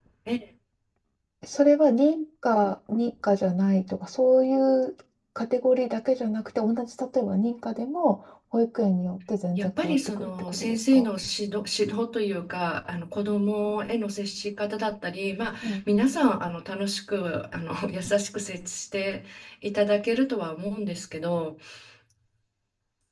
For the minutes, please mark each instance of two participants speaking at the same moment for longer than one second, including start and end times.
9.6-11.1

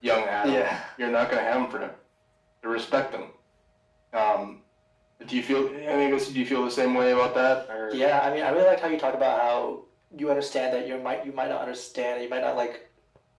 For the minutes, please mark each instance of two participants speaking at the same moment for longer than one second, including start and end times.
none

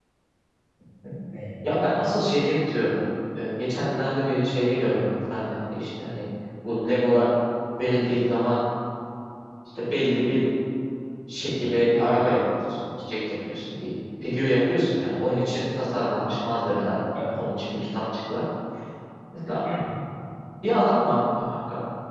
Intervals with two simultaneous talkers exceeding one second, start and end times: none

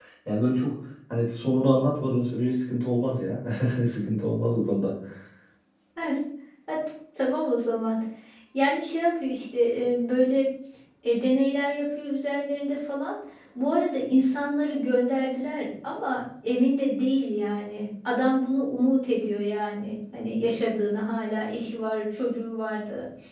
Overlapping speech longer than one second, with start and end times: none

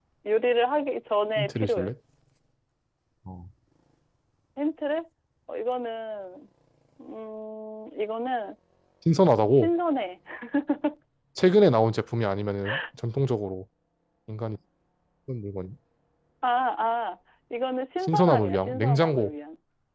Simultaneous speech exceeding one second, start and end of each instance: 18.0-19.3

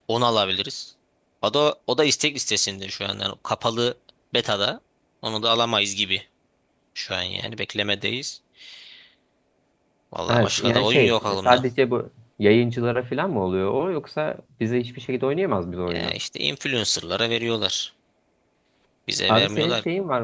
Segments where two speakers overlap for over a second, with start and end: 10.3-11.6

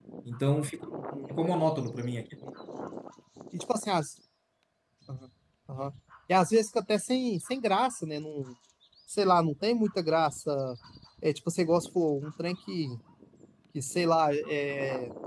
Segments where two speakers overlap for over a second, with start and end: none

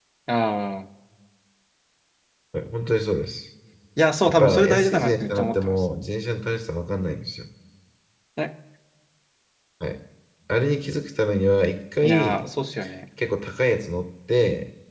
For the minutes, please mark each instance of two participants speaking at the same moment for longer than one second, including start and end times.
4.2-5.8

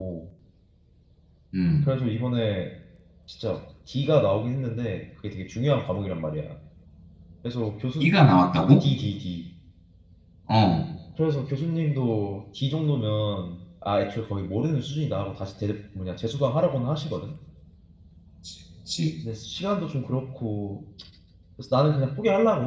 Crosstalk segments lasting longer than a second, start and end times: none

